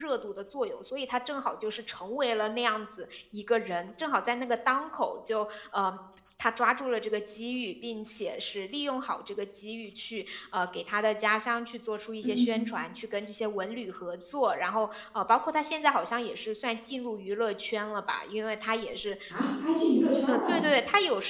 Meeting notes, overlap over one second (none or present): none